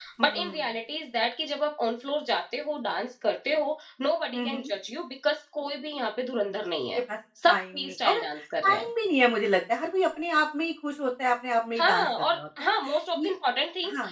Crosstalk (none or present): present